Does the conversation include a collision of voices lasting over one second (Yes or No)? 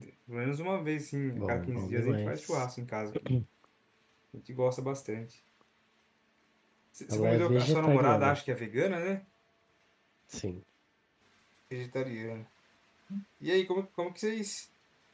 Yes